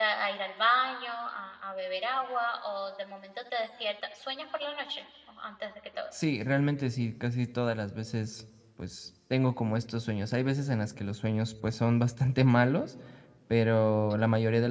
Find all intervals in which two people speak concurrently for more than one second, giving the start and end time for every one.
none

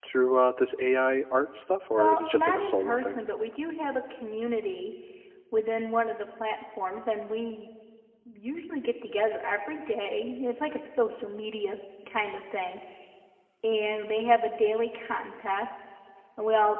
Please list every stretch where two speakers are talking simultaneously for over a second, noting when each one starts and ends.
1.9-3.2

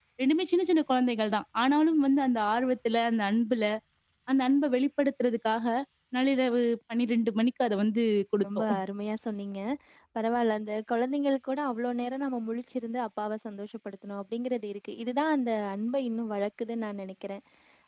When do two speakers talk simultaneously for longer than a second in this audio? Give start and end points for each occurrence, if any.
none

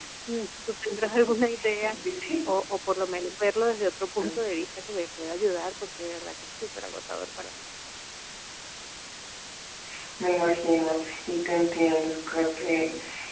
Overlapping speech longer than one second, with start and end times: none

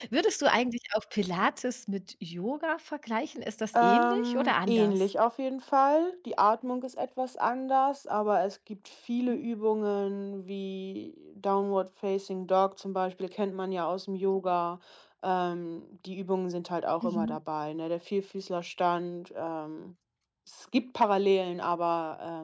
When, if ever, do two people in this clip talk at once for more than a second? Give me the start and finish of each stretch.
3.7-5.0

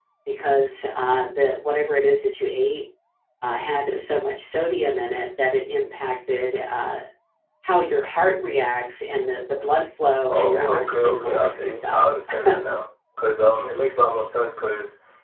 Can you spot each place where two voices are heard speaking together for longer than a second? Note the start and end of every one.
10.3-12.0

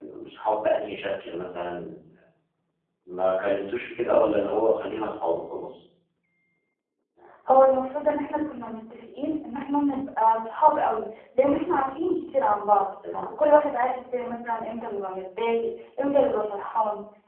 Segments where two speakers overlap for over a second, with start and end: none

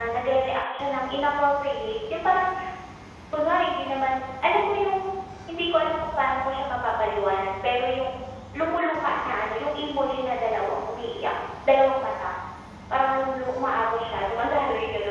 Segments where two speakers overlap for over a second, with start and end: none

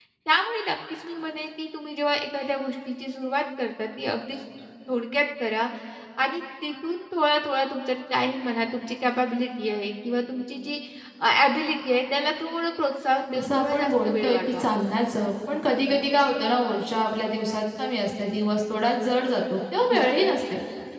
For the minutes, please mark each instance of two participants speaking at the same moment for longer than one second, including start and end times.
13.3-14.6

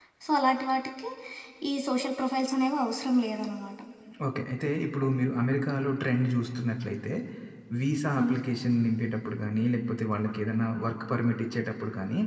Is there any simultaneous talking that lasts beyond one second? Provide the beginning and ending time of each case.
none

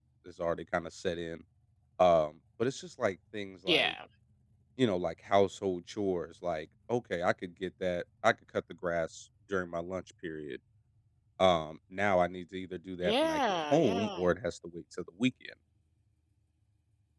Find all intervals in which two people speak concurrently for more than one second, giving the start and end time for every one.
13.0-14.3

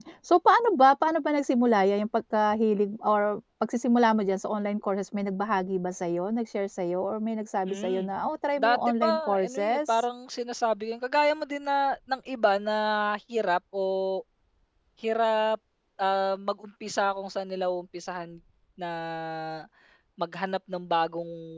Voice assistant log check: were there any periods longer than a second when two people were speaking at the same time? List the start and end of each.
8.6-10.0

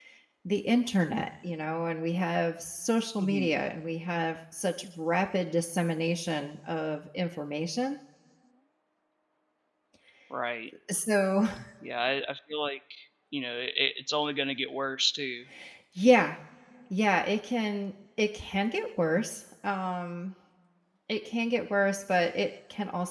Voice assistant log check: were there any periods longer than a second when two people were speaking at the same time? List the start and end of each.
none

